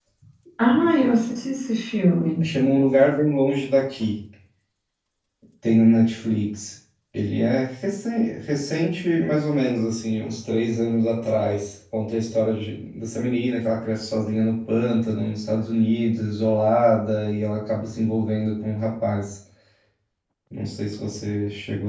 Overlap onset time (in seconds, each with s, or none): none